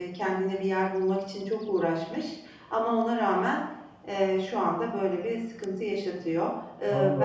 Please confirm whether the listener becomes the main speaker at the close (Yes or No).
Yes